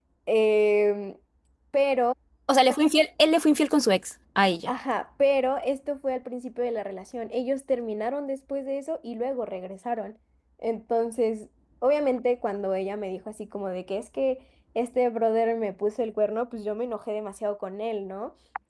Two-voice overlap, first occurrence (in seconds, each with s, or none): none